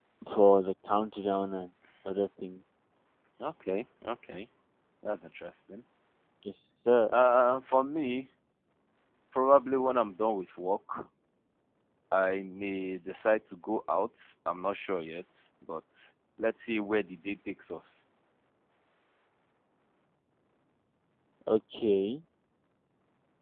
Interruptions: none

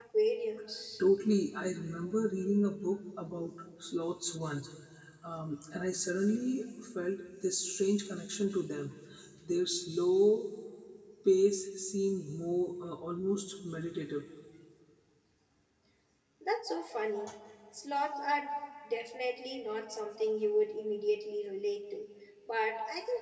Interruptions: none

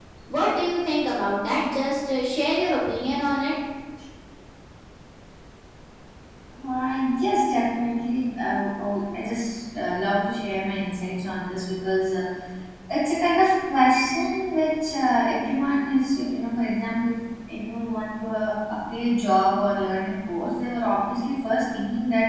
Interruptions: none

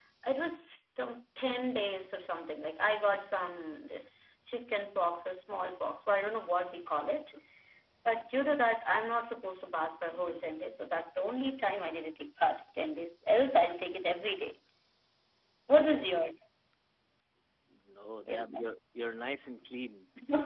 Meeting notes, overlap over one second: none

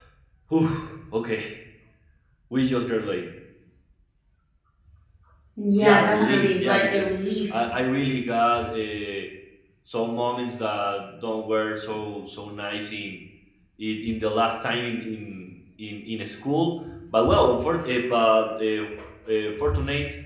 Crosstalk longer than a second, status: present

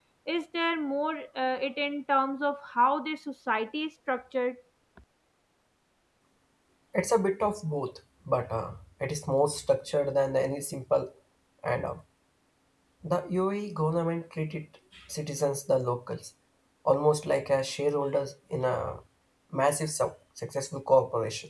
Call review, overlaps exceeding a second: none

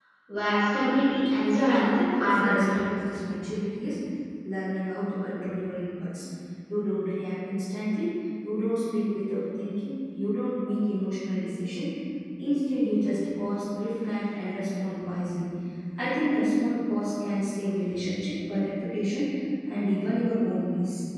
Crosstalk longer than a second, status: present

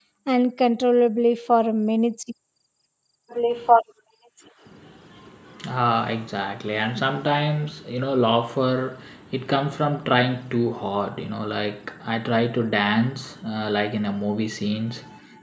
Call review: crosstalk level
none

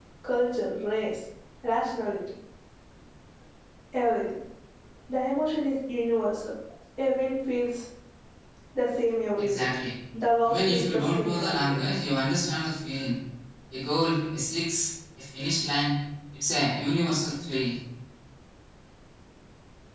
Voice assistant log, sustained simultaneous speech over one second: present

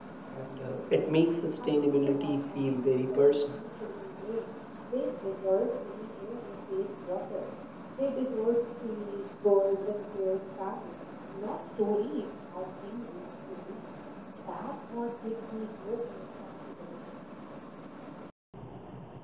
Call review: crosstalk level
present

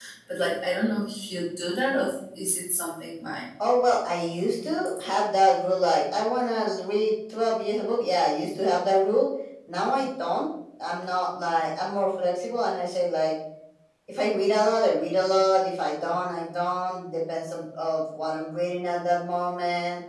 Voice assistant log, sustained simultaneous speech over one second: none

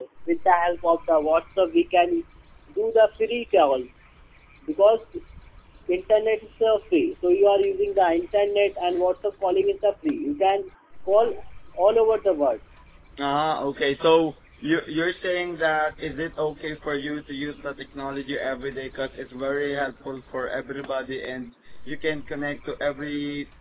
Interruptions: none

